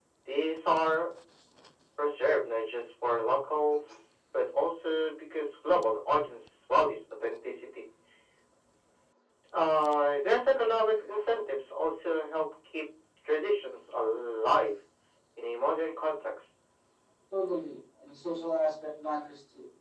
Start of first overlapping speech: none

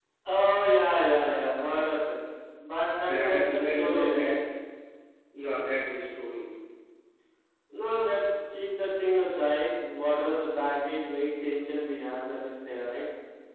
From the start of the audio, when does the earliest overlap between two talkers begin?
3.1 s

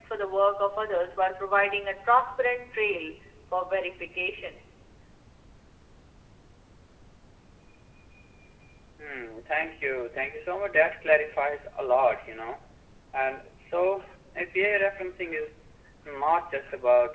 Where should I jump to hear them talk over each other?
none

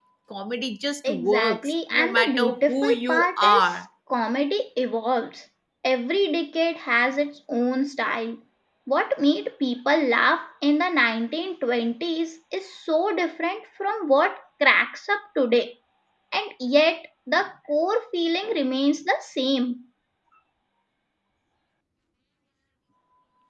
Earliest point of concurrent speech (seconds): 1.1 s

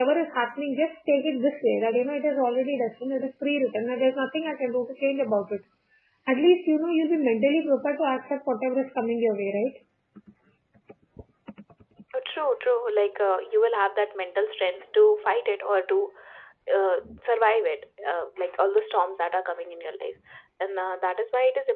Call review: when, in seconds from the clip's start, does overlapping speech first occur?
none

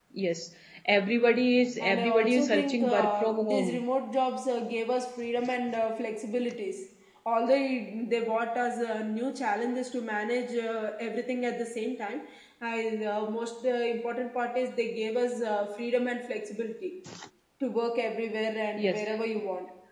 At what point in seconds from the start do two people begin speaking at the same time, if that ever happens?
1.8 s

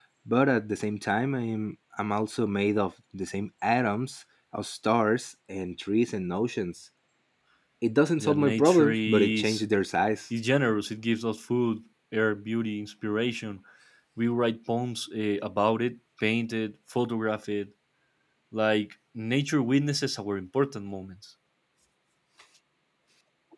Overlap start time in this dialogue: 8.2 s

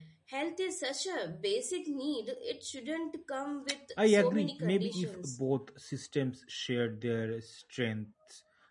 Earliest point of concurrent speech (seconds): 4.0 s

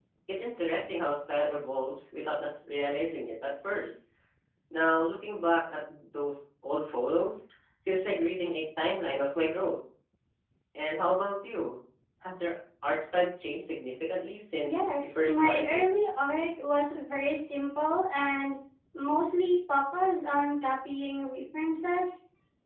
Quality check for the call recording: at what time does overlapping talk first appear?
14.7 s

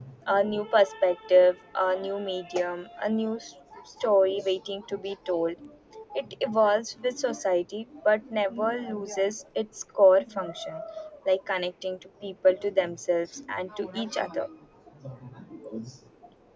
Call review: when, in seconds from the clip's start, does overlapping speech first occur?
none

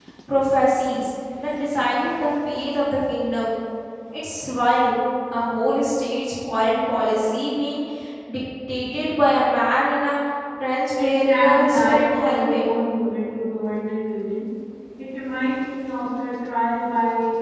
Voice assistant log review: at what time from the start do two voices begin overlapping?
10.9 s

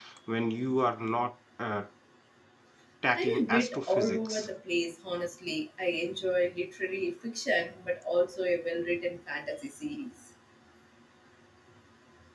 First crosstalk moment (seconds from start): 3.2 s

